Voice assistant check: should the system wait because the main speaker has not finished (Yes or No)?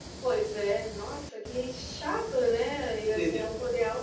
Yes